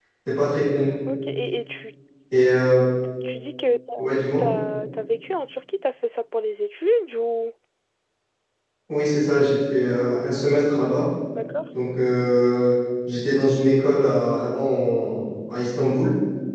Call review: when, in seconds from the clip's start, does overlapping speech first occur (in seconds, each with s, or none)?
none